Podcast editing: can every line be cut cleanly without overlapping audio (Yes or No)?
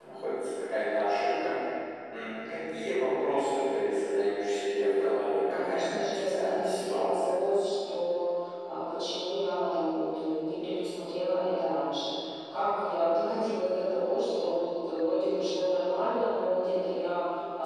No